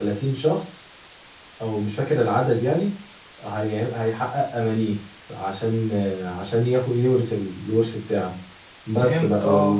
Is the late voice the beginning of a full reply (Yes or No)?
No